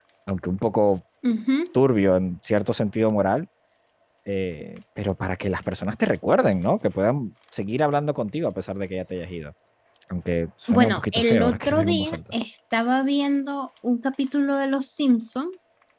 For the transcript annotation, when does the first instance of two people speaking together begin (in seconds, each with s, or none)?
10.7 s